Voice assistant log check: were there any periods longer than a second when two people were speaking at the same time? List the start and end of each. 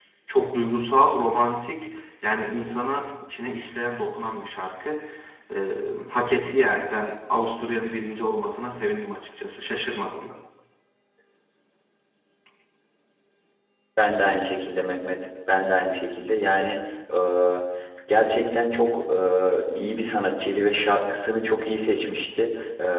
none

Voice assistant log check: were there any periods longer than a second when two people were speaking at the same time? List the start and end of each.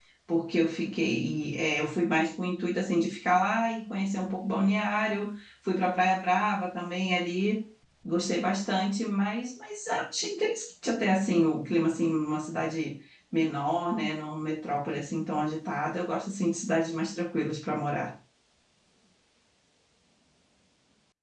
none

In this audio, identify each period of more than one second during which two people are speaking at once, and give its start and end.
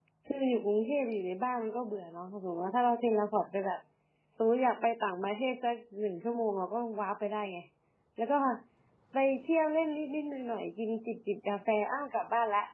none

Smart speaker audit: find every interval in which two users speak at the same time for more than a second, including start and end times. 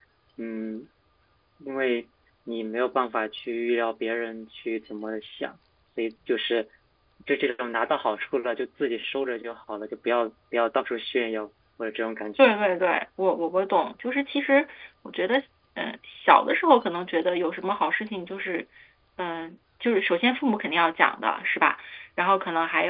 none

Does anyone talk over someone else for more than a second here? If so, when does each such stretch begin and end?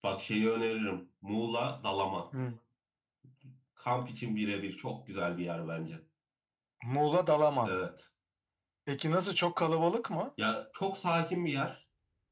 none

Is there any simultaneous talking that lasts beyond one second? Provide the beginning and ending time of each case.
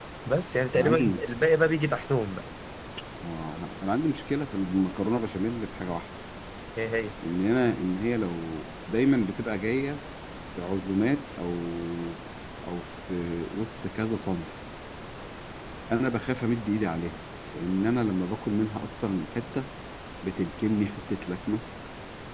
none

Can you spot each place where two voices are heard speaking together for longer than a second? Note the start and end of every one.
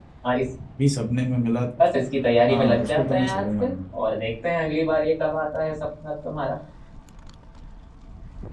2.5-3.7

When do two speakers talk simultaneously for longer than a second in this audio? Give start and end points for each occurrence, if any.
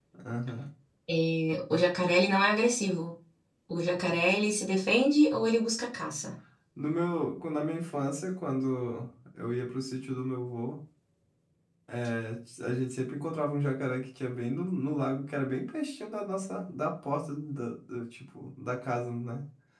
none

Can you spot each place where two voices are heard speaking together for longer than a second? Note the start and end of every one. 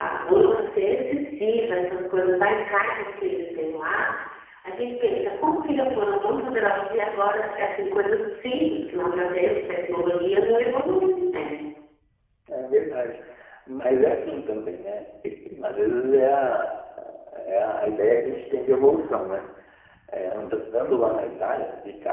none

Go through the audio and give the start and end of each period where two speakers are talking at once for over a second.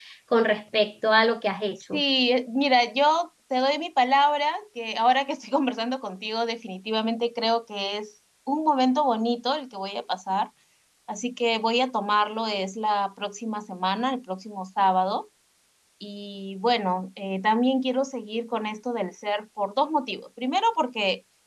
none

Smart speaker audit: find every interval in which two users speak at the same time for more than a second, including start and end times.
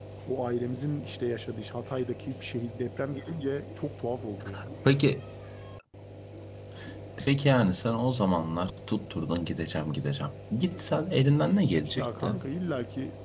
none

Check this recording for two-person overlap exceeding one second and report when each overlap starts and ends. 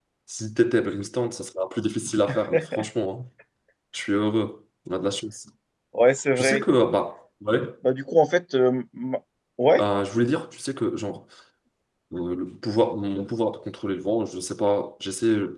none

